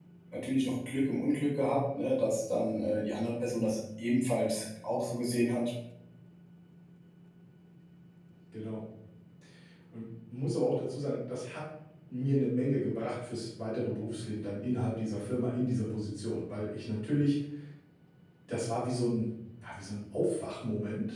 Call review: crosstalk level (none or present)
none